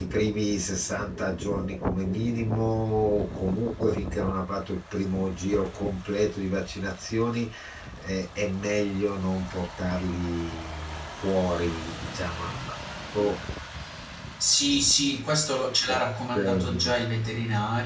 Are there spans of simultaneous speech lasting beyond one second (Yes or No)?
No